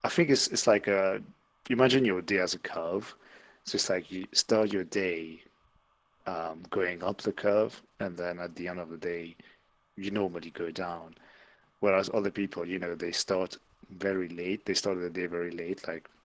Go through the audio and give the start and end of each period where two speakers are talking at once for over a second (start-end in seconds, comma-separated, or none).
none